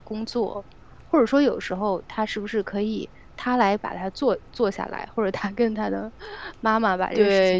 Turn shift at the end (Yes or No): Yes